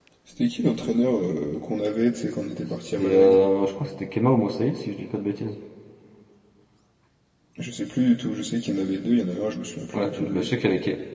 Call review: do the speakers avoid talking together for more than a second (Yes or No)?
Yes